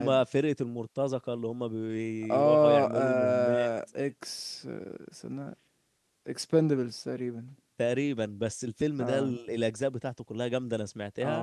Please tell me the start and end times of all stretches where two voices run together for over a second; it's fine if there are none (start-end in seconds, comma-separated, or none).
2.3-3.7